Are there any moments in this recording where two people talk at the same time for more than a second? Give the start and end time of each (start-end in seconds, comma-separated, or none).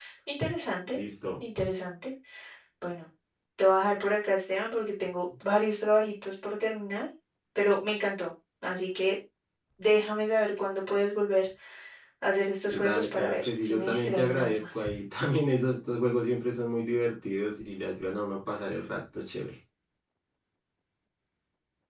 12.7-14.8